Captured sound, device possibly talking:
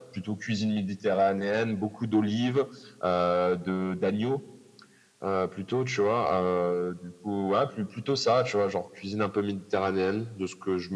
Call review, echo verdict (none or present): present